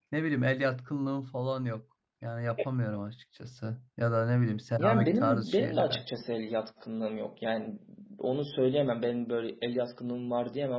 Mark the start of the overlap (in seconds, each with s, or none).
4.8 s